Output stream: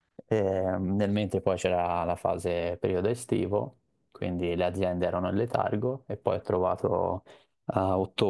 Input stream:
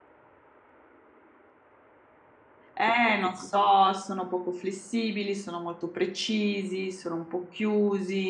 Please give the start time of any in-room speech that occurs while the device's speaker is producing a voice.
2.8 s

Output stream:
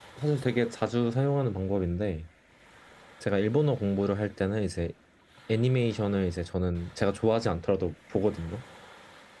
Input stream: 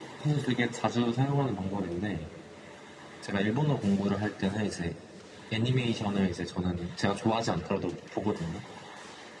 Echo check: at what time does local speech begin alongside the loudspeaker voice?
none

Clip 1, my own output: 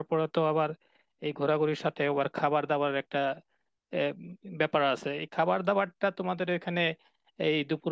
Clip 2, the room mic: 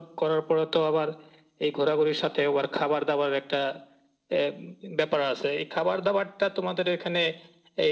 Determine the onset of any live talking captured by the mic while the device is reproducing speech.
none

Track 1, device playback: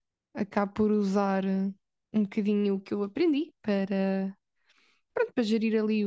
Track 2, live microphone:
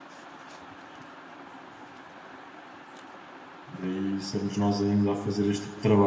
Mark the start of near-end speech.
3.7 s

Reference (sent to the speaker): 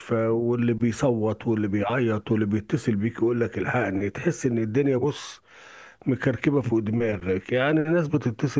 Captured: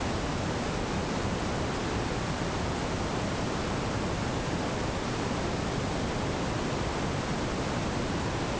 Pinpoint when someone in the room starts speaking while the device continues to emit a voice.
none

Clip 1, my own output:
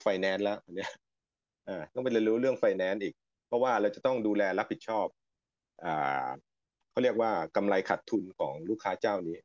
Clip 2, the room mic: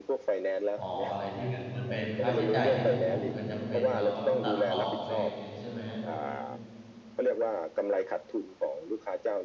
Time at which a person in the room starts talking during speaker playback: 0.7 s

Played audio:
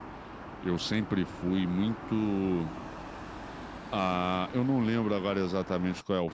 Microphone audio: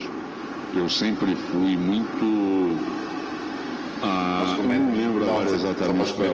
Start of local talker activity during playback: 4.4 s

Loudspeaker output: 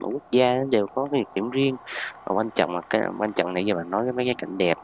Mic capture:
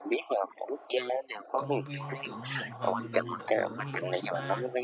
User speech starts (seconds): 1.6 s

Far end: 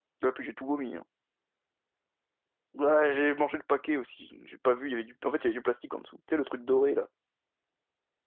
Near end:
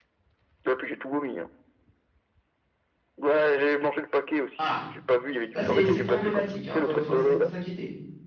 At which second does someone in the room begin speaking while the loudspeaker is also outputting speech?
4.6 s

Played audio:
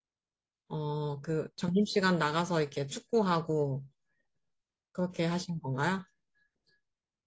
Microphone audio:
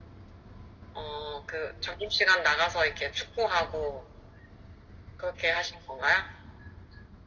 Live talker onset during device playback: none

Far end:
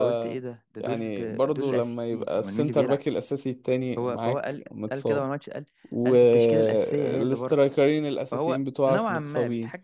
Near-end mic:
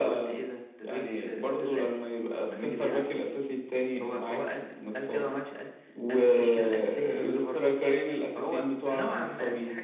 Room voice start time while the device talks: none

